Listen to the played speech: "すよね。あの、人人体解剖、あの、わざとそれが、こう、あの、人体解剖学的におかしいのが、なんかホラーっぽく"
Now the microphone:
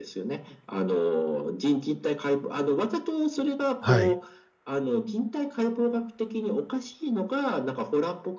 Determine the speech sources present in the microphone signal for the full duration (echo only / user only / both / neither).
both